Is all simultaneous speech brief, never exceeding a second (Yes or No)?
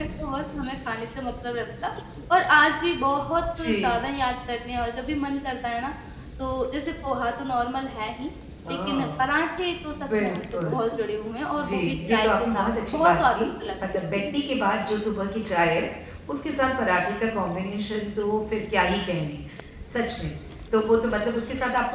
No